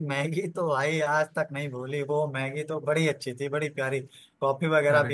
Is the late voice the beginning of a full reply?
No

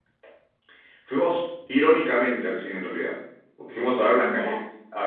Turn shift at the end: No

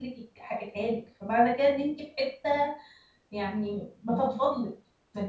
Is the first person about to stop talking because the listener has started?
No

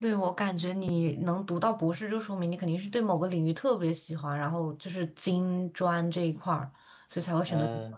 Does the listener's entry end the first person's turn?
Yes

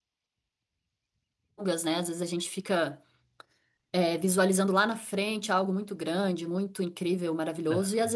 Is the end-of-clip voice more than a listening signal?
No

